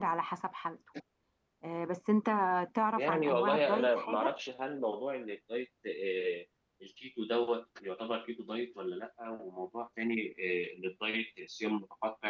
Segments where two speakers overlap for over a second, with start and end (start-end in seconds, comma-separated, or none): 3.0-4.3